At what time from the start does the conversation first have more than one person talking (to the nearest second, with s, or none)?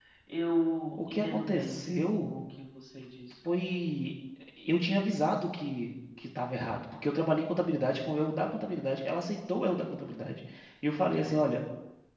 1 s